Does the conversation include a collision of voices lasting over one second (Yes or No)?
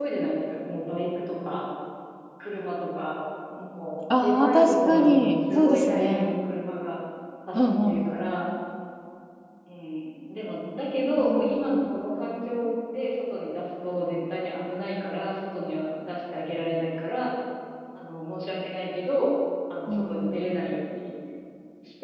Yes